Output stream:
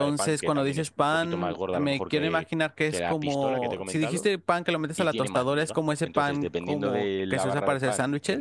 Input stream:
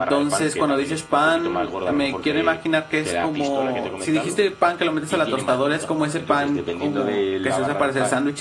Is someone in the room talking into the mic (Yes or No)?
No